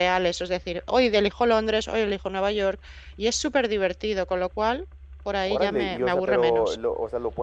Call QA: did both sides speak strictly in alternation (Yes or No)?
No